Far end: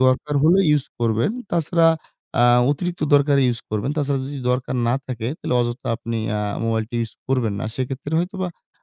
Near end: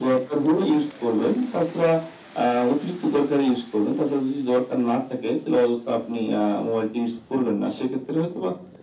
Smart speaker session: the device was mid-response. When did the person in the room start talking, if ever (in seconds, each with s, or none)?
none